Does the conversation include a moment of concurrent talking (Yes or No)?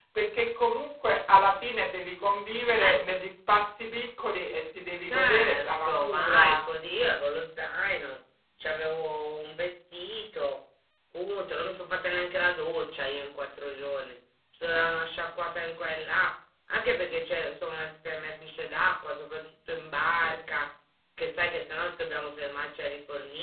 Yes